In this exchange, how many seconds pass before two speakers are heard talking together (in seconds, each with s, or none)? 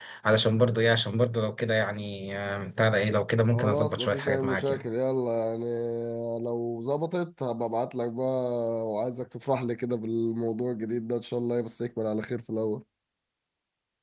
3.5 s